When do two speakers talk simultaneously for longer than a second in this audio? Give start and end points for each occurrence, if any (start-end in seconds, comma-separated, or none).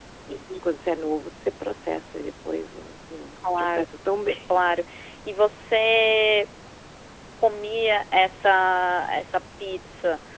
none